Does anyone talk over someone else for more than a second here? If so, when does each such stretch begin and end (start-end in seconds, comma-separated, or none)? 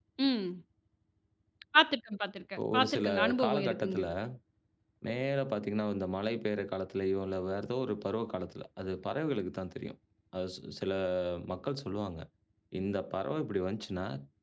2.7-4.0